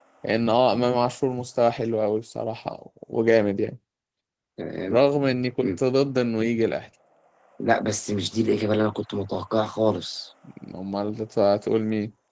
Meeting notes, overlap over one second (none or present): none